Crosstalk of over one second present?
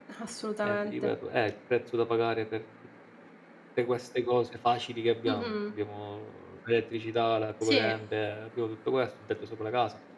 No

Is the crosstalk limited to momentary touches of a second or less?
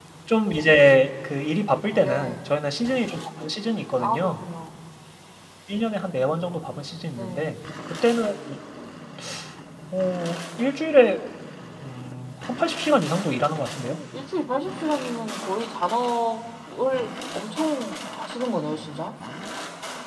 Yes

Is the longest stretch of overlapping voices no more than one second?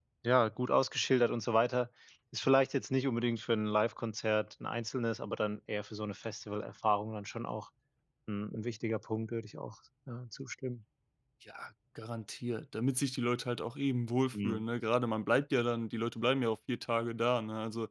Yes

